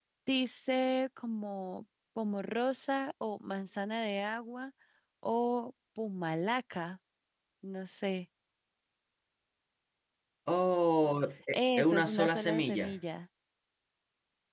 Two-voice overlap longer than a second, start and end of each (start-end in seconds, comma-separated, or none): 11.5-13.0